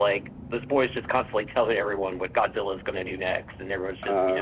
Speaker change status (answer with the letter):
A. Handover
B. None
B